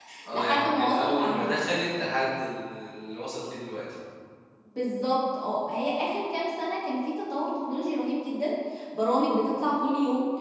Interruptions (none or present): present